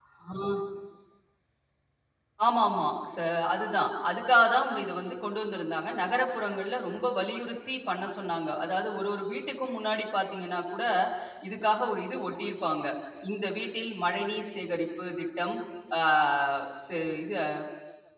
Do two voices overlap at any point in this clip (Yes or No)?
No